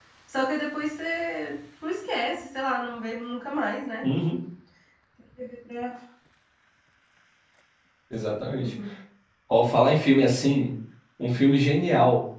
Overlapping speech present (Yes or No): No